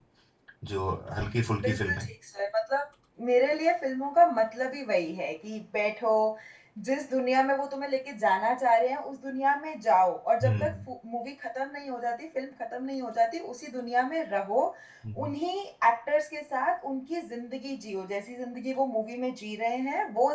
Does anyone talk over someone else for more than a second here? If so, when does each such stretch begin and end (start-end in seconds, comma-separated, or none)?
none